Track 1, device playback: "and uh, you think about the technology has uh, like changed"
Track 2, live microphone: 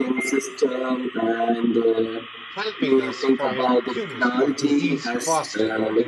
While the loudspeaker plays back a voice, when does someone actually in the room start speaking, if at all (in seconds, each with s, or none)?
2.5 s